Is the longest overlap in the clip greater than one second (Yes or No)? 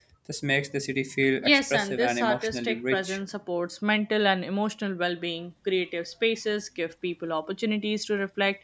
Yes